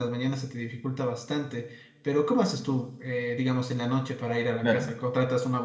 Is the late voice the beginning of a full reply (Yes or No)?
No